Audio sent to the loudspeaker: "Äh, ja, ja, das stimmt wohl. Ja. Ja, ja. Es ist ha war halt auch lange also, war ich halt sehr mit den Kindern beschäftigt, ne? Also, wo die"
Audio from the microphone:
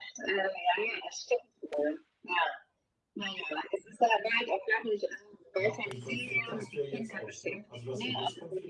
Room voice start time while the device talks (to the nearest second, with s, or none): 6 s